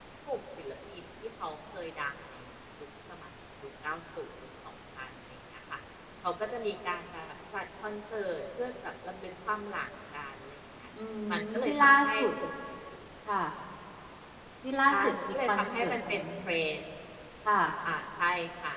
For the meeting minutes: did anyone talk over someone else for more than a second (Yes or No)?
Yes